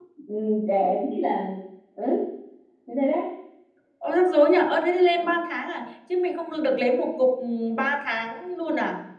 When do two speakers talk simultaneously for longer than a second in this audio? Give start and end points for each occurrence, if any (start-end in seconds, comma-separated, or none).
none